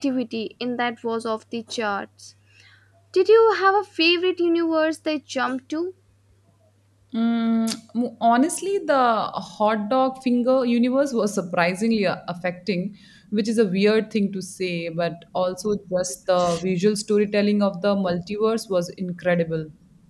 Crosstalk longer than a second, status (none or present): none